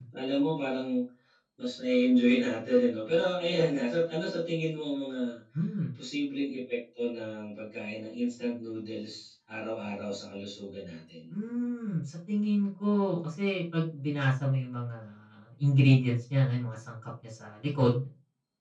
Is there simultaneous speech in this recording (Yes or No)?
No